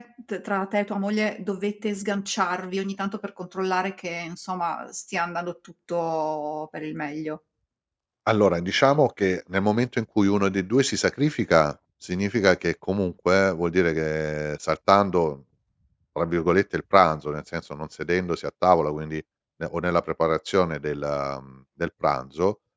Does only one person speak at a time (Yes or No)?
Yes